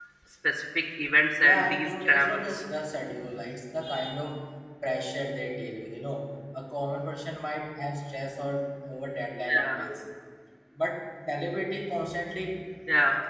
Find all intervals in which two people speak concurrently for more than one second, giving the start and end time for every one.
1.4-2.6

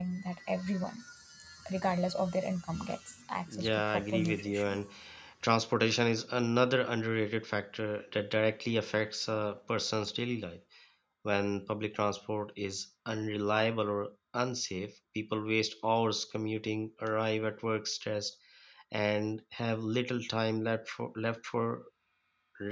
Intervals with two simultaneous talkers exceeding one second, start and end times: 3.5-4.8

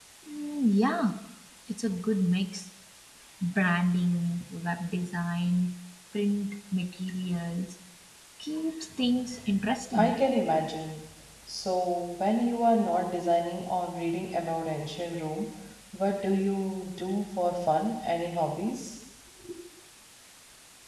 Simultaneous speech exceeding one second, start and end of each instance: none

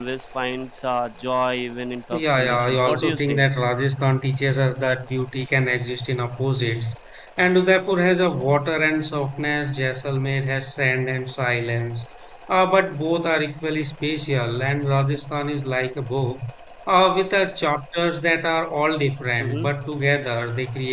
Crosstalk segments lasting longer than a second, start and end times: 2.1-3.4

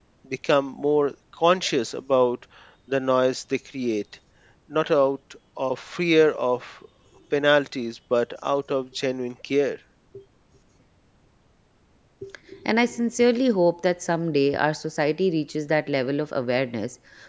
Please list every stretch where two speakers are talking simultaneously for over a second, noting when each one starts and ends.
none

